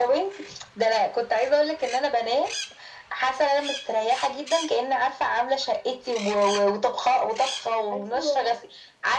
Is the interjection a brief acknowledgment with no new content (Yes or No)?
Yes